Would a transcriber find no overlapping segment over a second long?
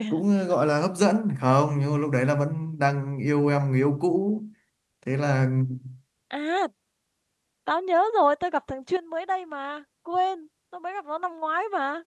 Yes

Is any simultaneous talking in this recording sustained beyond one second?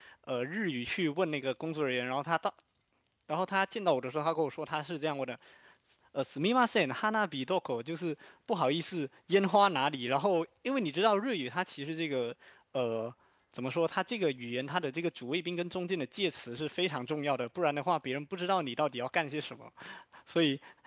No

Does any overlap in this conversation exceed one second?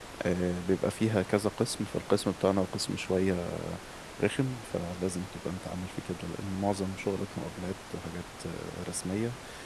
No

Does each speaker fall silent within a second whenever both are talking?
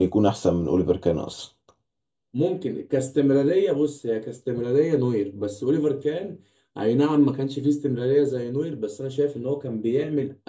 Yes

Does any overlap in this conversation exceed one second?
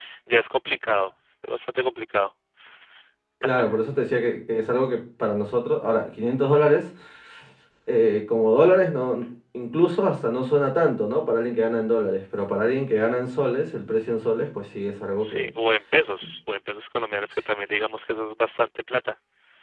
No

